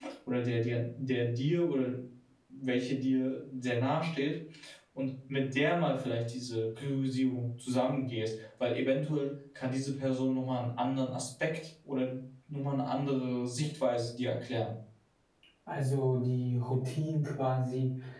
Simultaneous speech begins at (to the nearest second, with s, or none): none